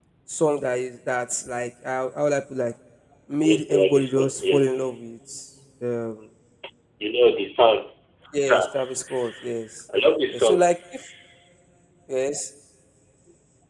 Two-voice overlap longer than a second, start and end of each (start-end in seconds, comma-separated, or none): 3.4-4.8